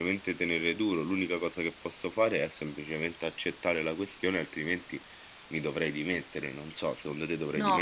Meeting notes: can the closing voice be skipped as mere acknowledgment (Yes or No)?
No